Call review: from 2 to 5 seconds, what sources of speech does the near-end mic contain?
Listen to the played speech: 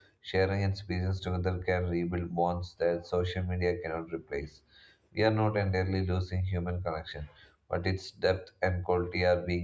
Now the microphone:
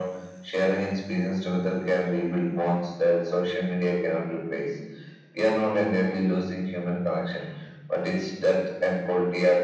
echo only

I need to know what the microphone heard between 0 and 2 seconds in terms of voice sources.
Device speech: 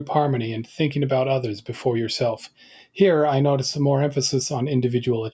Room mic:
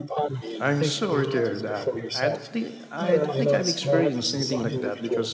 both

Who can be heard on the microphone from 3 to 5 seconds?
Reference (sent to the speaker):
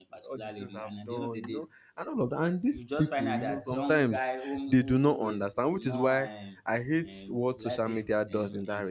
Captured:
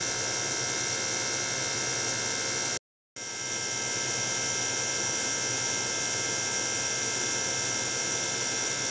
neither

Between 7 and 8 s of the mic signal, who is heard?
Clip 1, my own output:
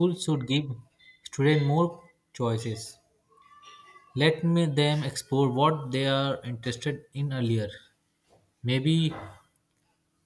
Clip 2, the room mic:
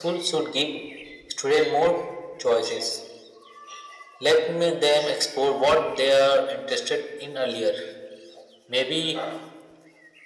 echo only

